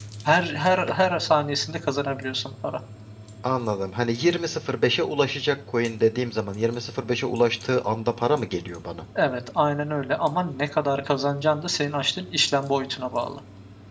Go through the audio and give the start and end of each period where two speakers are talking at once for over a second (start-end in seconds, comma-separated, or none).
none